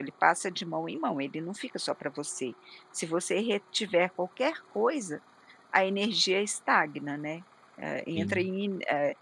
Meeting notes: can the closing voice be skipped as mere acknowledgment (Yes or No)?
Yes